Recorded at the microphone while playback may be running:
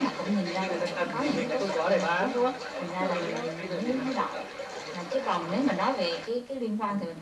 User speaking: Yes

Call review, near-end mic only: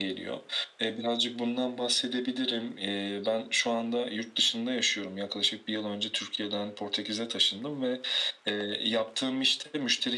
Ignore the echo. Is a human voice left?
No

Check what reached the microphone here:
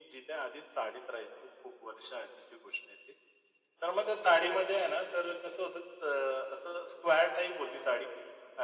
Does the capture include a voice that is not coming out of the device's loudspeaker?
No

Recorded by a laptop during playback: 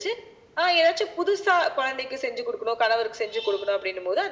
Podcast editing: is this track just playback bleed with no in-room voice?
Yes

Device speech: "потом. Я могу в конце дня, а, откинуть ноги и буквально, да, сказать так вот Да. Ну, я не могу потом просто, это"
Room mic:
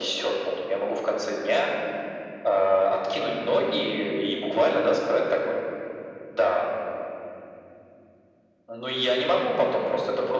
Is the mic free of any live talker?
Yes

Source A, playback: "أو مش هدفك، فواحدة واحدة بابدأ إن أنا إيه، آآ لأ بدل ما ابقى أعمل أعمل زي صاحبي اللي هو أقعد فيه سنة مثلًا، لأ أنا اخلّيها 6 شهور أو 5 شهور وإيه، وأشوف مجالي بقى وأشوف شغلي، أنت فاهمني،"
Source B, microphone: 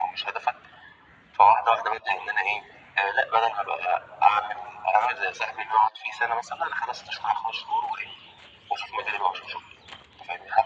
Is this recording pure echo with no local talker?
Yes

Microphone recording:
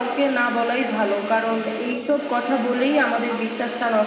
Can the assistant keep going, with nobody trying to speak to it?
No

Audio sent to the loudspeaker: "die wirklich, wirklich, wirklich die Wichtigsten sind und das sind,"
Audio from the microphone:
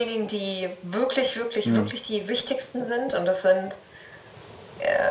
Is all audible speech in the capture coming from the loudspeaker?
No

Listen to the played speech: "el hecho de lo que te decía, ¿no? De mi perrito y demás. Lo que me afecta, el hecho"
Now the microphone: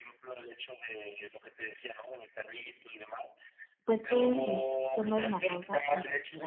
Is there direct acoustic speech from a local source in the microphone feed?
Yes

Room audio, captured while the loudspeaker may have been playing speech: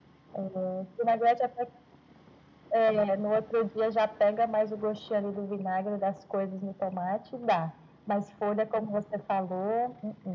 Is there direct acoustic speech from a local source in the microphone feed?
No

